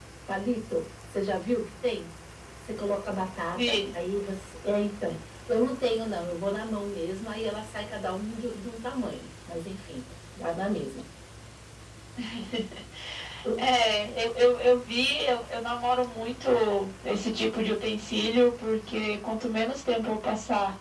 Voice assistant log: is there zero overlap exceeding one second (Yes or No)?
Yes